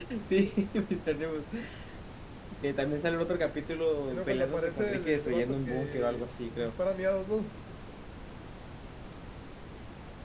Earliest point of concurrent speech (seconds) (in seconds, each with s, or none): 4.0 s